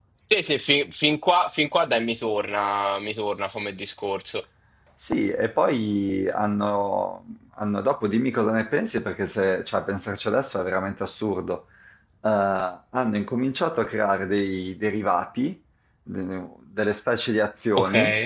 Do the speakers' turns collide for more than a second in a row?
No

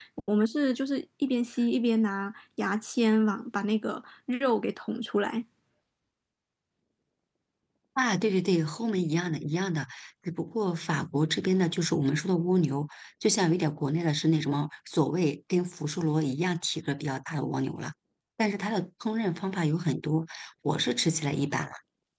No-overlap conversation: Yes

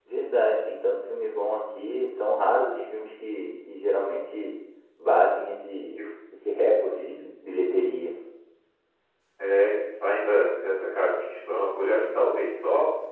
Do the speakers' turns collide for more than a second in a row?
No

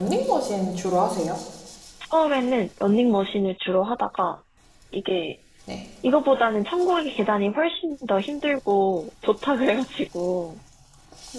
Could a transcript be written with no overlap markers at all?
Yes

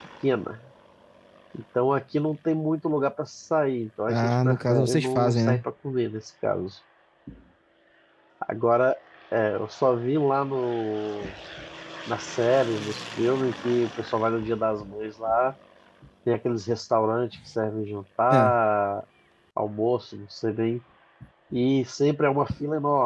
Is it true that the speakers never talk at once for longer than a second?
No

